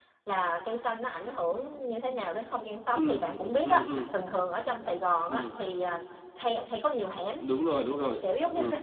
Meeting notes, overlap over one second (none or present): none